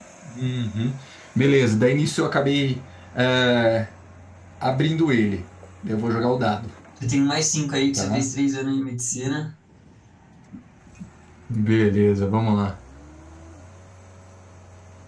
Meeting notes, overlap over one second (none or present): none